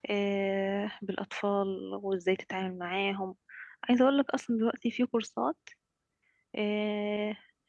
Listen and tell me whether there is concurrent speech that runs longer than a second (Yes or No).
No